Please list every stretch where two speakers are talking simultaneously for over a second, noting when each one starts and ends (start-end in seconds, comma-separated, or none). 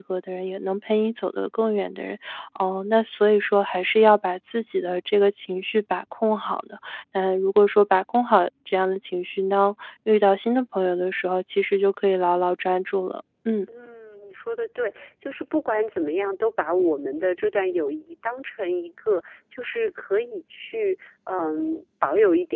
none